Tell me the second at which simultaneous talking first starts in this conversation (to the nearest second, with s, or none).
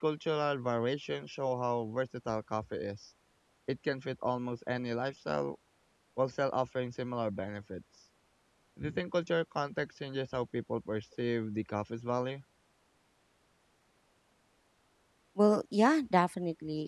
none